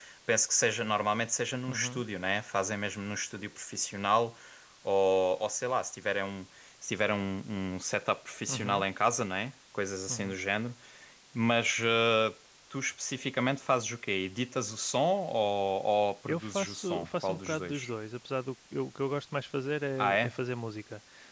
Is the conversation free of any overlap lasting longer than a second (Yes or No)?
No